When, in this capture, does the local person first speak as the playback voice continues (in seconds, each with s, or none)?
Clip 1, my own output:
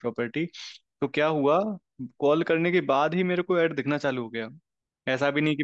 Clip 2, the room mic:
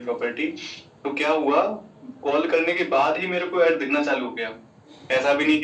none